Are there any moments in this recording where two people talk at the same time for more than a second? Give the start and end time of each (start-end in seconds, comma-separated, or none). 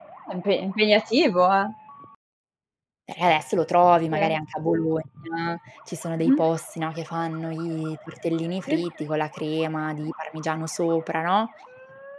none